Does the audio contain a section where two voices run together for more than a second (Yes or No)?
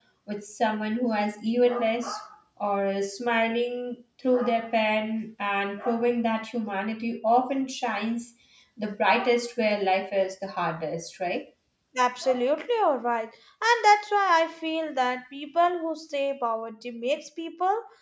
No